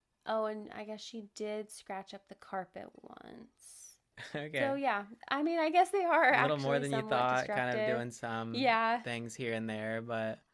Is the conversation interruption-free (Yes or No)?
No